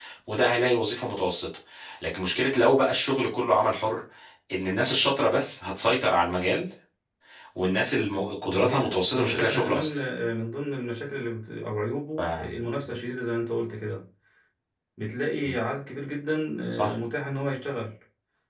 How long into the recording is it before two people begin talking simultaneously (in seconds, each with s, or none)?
8.5 s